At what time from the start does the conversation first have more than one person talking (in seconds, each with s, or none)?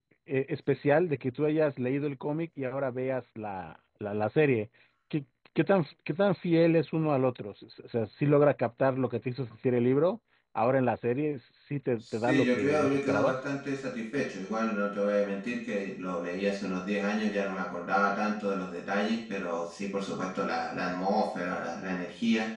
12.1 s